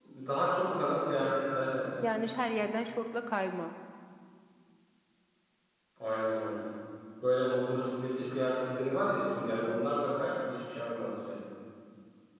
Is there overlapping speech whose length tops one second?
No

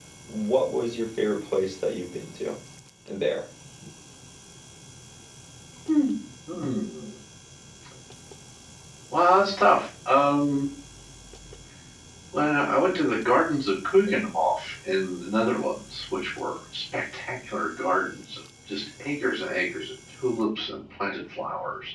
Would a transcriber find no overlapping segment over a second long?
Yes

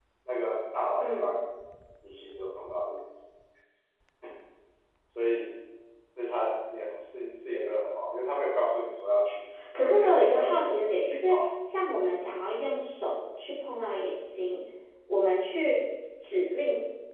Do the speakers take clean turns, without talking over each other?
No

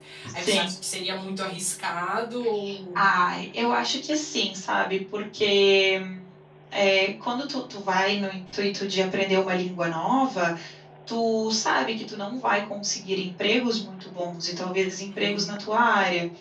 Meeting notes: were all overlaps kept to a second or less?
Yes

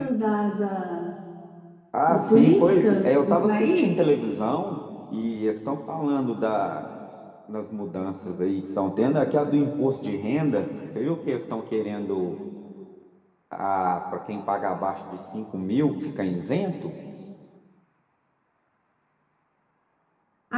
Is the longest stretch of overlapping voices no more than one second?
No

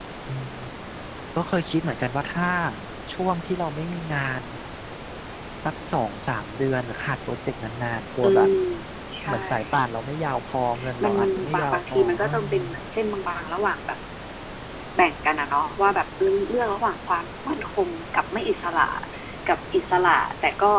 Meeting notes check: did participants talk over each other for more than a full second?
Yes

